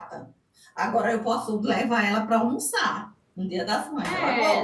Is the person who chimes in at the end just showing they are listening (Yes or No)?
No